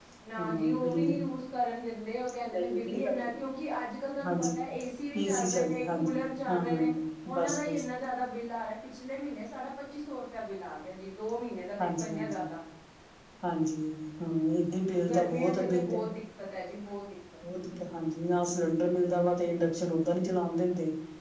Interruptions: present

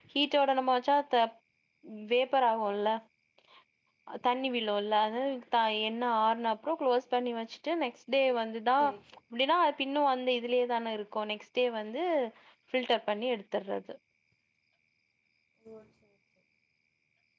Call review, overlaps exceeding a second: none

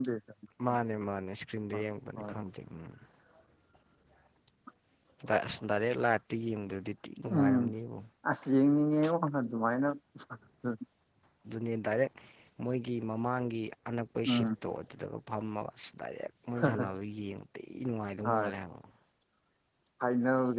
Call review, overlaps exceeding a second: none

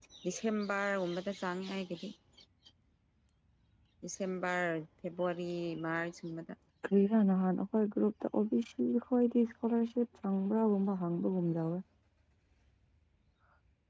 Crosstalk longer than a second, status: none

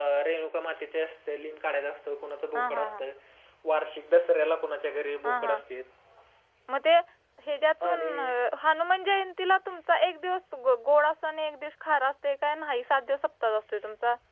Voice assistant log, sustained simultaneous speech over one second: none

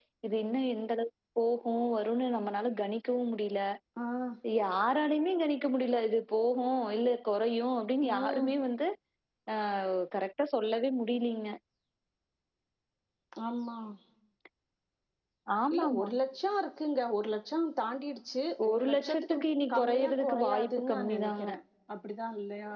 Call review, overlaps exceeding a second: present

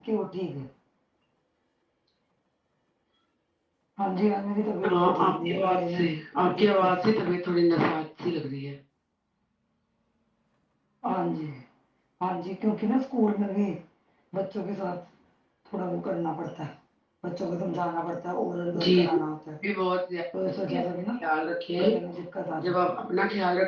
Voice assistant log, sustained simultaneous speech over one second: present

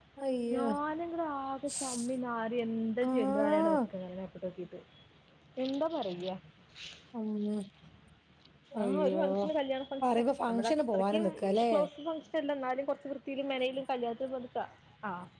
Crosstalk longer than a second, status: present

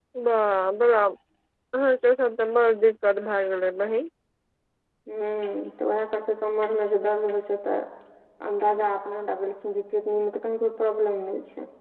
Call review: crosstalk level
none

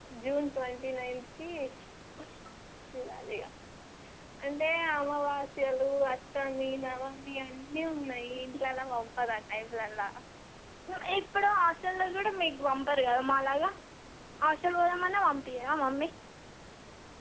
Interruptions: none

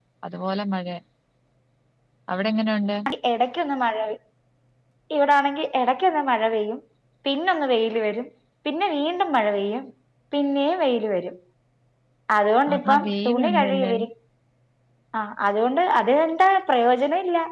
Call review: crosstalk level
present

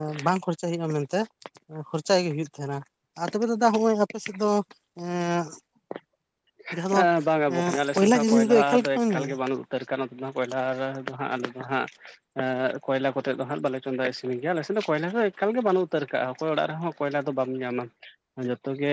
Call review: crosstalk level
present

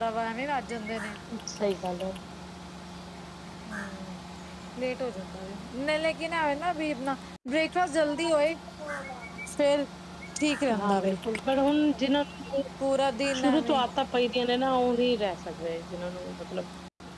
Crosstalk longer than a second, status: none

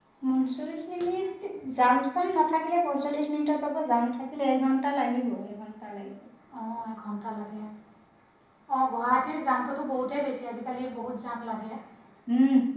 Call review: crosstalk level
none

